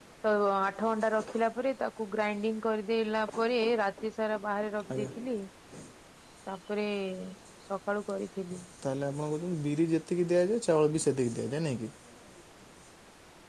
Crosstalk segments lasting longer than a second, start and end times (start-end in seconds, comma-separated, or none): none